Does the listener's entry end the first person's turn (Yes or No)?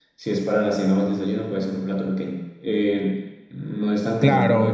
Yes